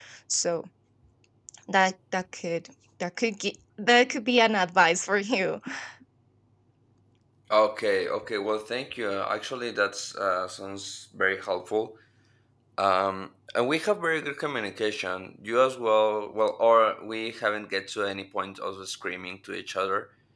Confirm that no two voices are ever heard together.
Yes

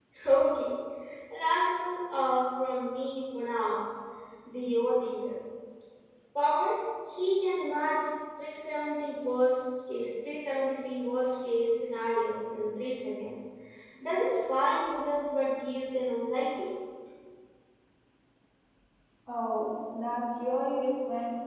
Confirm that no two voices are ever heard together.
Yes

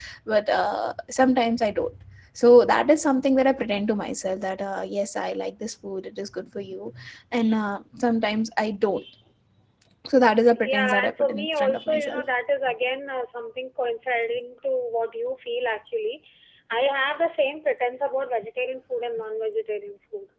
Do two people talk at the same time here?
Yes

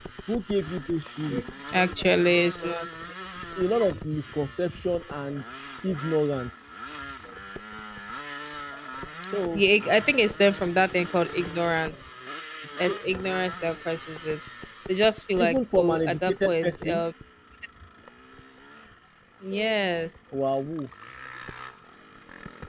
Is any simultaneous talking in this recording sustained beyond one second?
Yes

